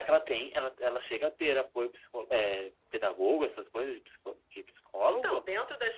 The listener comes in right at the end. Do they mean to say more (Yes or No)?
Yes